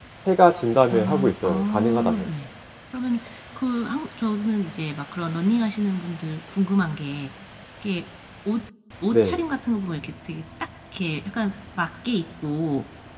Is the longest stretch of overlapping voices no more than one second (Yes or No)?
No